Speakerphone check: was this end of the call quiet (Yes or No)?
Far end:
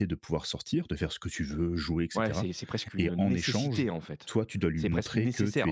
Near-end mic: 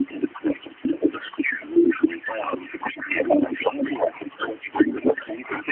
Yes